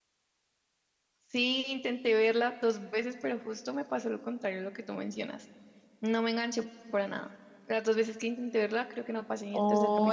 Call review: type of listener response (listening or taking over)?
taking over